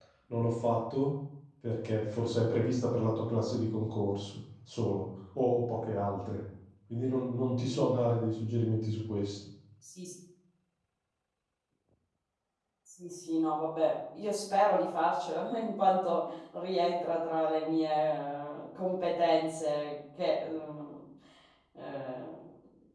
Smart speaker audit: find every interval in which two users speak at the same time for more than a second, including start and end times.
none

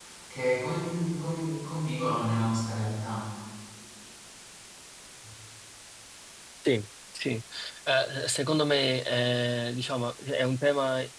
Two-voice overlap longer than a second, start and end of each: none

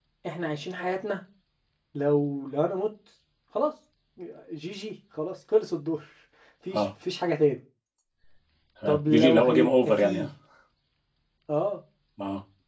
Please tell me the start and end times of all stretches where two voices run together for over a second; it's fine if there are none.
8.9-10.3

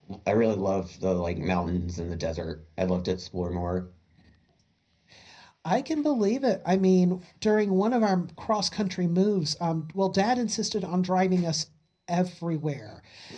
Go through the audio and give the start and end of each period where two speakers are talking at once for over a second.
none

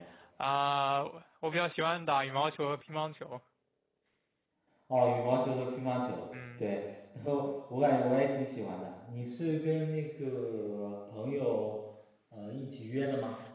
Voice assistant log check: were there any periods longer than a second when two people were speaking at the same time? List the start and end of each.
none

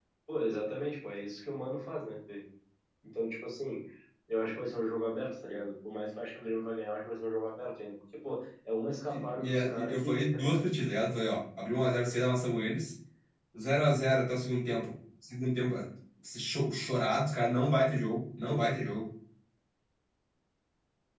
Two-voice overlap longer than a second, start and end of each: 9.1-10.7

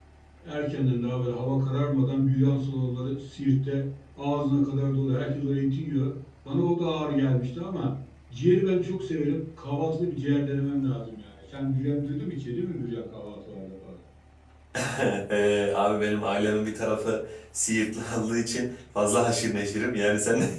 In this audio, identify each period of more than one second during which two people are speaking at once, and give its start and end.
none

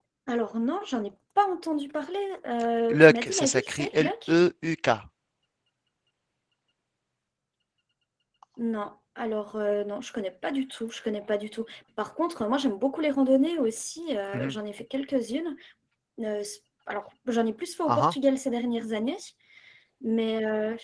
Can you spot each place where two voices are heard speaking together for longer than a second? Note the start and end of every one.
2.9-4.3

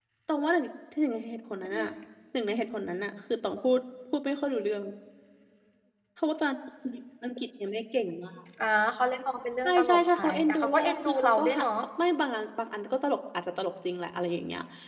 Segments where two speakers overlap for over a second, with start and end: 9.7-11.7

